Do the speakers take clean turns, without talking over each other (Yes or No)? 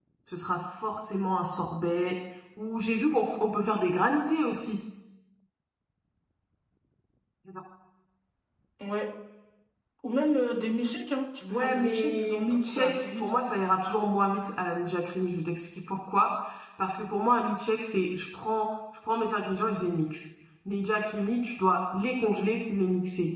No